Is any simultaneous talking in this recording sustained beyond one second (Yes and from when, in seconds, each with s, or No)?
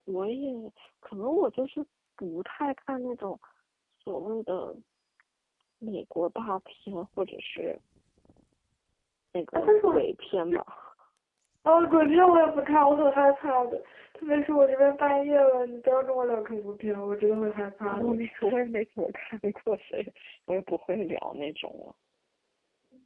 No